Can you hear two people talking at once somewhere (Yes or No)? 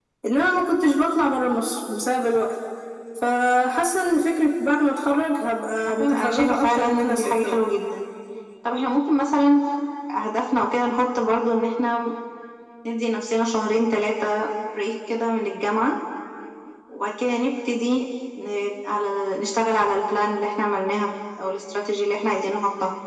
Yes